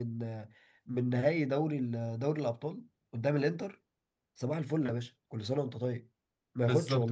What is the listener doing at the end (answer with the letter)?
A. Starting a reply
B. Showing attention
A